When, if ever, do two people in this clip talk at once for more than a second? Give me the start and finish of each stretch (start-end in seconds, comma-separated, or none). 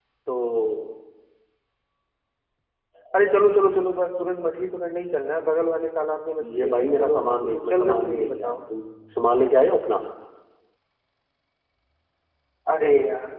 6.5-8.6